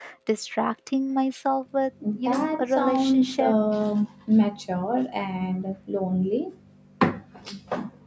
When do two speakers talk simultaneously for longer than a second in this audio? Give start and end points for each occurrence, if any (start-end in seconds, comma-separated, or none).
2.2-3.5